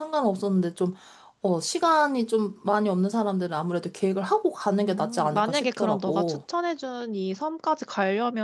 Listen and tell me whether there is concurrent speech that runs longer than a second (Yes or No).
Yes